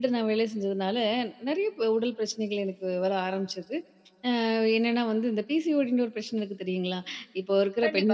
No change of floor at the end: No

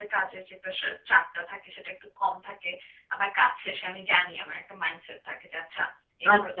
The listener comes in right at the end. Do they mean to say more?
Yes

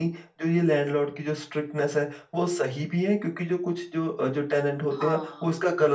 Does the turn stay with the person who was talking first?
Yes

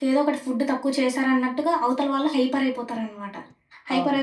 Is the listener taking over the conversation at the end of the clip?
No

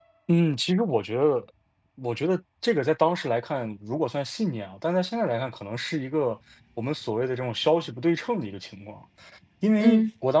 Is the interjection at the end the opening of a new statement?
No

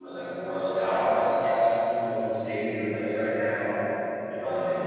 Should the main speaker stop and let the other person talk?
No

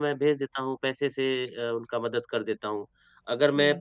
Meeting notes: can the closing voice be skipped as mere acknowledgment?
Yes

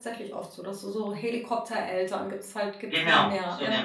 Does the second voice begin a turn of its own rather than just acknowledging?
Yes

